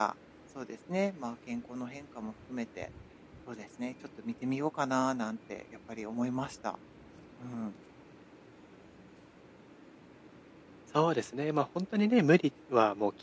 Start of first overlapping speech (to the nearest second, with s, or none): none